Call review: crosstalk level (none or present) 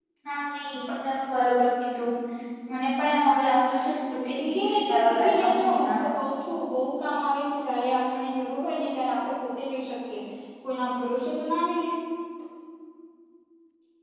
present